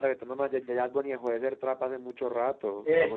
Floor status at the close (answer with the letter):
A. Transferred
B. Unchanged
A